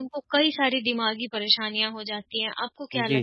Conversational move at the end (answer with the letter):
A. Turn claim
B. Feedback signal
A